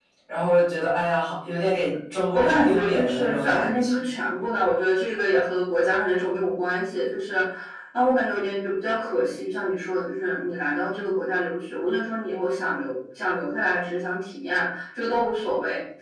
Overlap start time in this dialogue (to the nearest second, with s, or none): 2 s